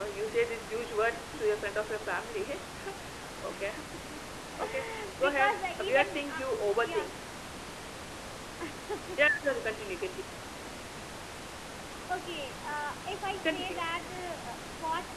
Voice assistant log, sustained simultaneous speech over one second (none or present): present